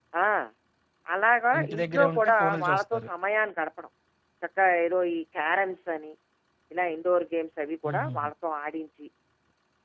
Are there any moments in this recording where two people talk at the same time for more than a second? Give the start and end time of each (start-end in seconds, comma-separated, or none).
1.6-3.1